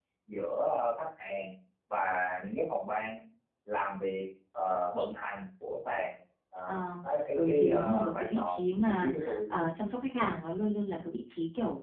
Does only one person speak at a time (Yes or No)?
No